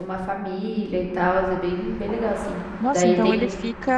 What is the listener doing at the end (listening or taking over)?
taking over